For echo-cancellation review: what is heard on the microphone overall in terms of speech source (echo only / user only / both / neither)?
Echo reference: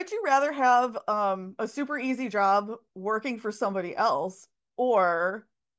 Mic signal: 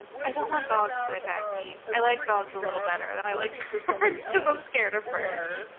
both